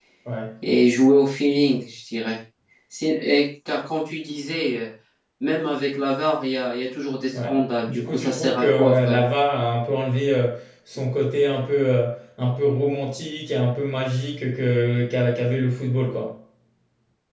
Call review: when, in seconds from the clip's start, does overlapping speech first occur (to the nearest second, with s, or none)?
7 s